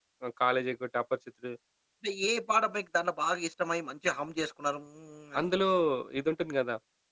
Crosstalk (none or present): none